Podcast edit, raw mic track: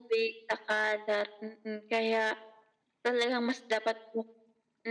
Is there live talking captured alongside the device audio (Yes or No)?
No